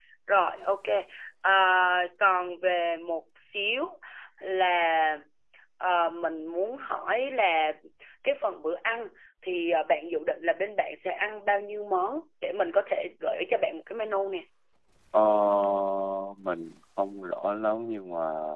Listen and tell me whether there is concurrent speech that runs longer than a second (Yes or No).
No